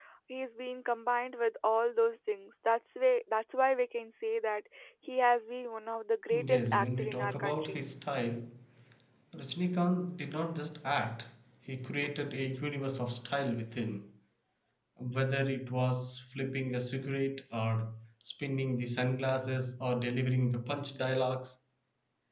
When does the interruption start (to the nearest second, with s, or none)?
6 s